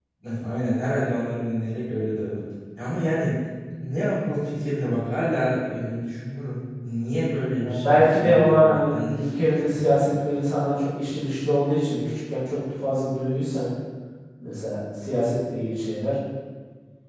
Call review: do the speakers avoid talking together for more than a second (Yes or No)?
No